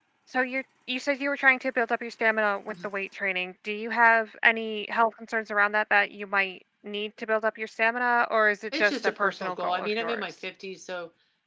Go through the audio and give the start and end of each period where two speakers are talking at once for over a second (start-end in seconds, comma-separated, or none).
8.7-10.2